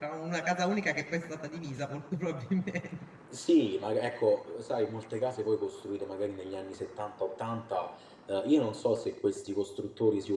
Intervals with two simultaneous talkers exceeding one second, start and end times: none

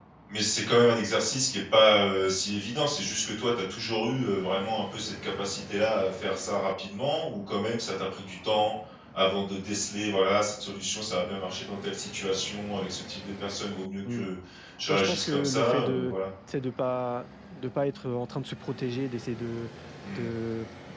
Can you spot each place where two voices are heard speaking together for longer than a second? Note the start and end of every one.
14.9-16.2

